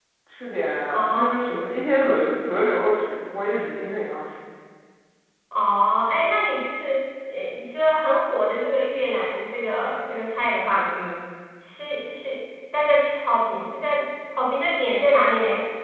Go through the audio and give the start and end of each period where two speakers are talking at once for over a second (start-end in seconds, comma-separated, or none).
none